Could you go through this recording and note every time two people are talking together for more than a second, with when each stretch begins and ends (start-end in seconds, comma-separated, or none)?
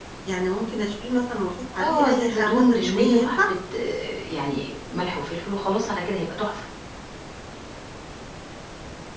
1.8-3.4